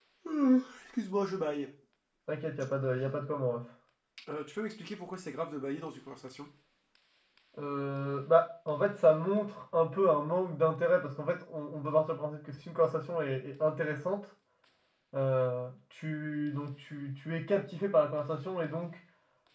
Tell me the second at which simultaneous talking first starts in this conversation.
none

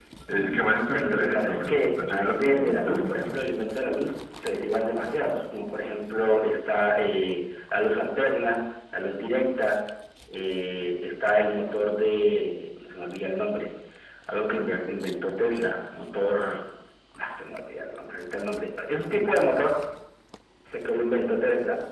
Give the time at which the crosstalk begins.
1 s

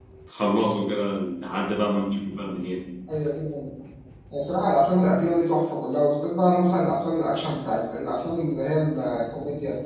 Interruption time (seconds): none

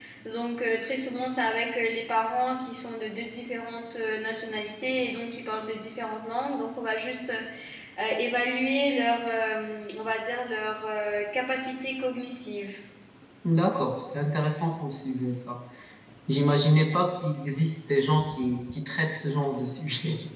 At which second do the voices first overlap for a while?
none

